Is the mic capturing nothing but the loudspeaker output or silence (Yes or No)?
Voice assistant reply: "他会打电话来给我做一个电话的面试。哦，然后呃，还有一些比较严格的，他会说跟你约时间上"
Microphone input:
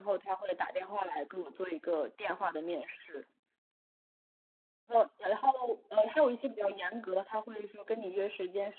Yes